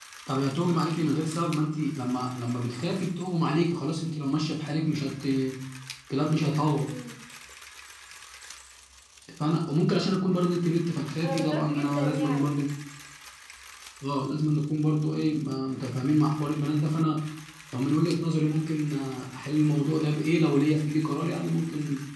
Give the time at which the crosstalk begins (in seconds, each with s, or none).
11.2 s